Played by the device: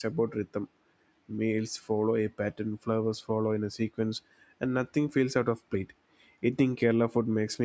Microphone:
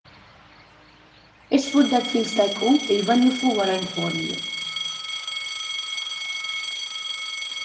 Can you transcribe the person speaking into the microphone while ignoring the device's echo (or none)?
It's food that feels like home, even if you weren't born here.